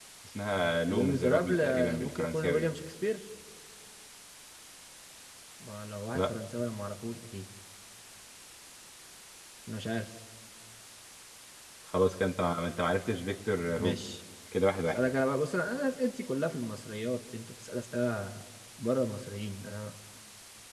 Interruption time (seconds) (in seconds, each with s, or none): 0.6 s